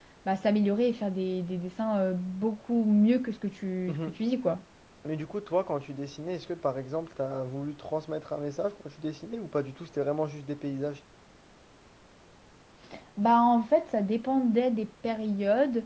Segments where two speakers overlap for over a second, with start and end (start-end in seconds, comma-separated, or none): none